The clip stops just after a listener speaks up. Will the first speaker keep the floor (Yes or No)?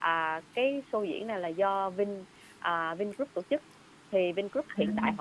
Yes